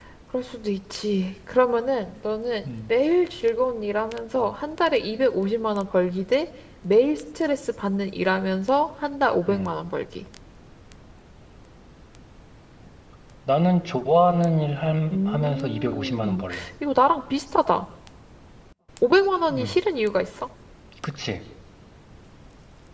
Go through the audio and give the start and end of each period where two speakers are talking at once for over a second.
15.1-16.4

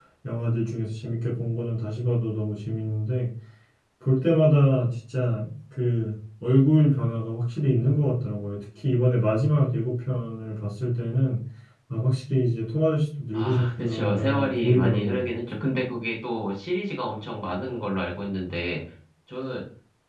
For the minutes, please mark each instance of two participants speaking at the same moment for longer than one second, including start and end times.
13.3-15.3

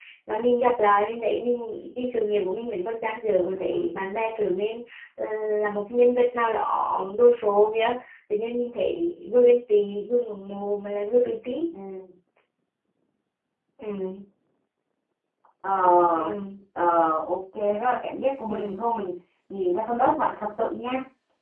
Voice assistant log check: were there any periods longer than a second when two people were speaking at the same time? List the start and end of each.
none

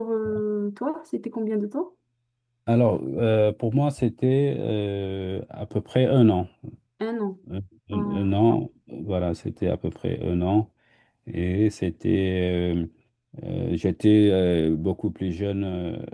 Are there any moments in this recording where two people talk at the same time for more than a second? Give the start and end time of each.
none

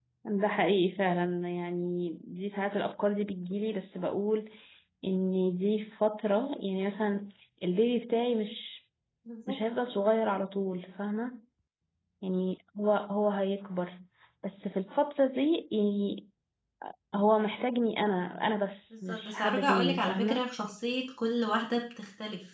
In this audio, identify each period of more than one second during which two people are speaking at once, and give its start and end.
18.9-20.4

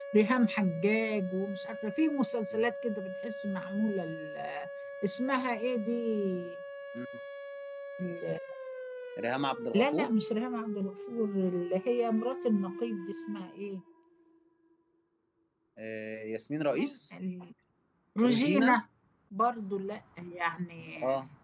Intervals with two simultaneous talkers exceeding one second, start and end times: none

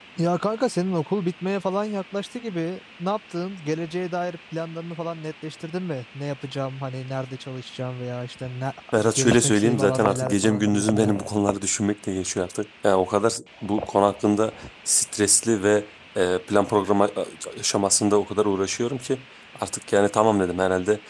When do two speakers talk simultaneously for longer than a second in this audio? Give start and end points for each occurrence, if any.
9.1-11.1

